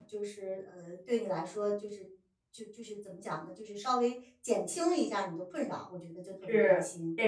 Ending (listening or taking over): taking over